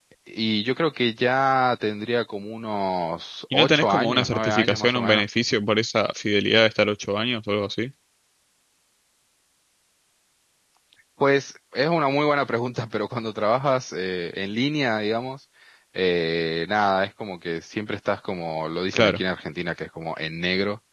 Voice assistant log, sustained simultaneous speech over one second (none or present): present